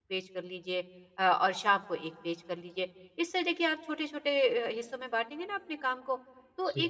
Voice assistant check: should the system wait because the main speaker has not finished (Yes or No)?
Yes